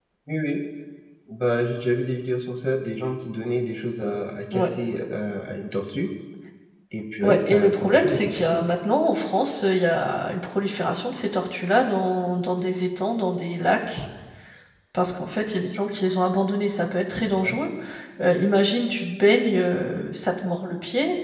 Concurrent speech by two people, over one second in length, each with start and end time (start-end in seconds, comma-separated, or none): 7.2-8.7